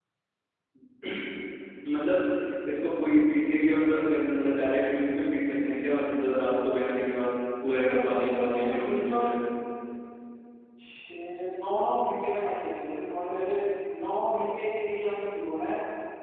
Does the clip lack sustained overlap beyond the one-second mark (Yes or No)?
No